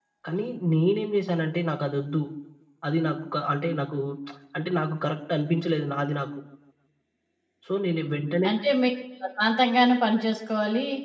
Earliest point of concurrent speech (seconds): none

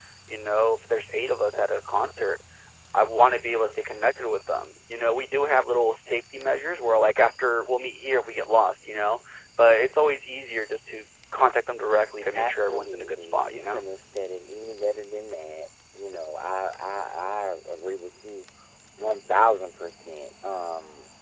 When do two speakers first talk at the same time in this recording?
12.3 s

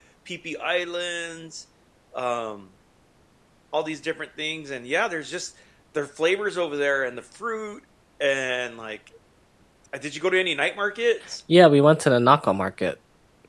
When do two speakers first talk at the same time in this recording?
none

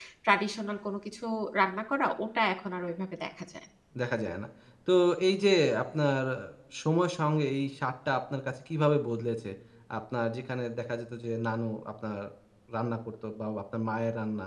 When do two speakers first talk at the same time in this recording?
none

